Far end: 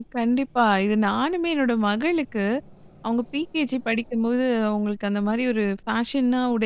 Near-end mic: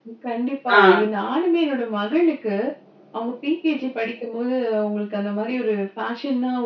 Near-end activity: present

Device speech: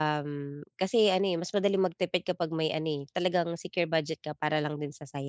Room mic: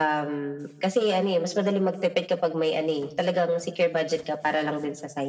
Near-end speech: none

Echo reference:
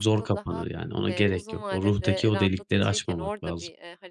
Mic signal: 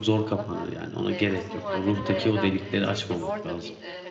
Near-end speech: present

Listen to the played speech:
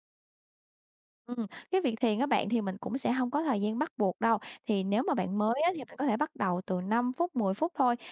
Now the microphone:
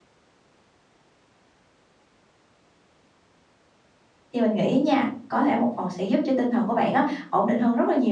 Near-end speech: present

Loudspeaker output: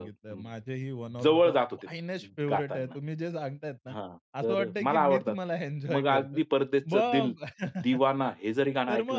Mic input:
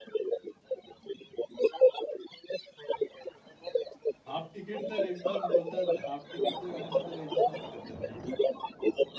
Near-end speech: present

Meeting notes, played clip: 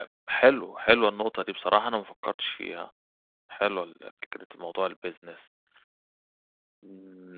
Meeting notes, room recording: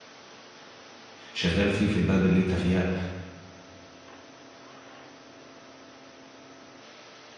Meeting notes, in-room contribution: present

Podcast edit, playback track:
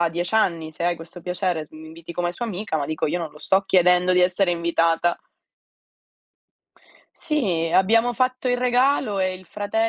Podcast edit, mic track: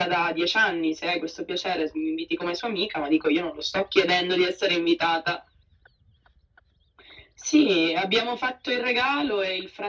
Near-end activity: none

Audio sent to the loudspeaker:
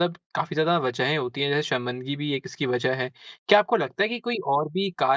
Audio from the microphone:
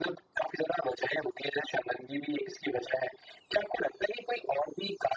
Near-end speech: none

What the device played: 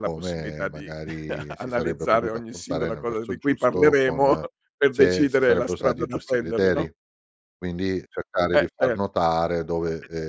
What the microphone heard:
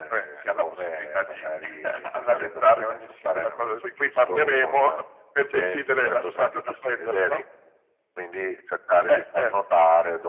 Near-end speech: none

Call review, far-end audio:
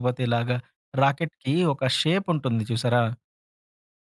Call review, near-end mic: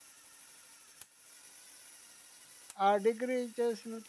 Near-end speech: present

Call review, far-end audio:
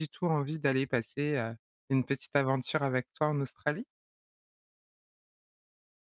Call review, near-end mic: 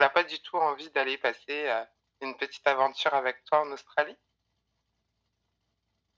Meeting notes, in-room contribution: none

